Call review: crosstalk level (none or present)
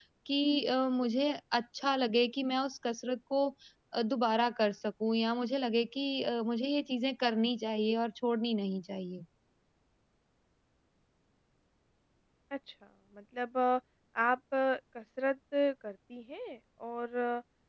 none